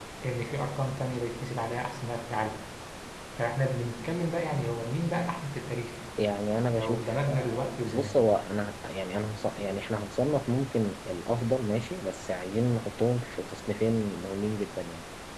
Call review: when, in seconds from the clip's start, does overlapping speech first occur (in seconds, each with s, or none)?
6.7 s